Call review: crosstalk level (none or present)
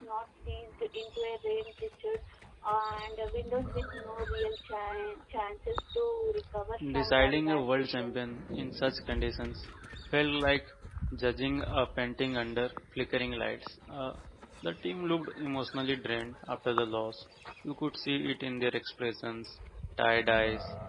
present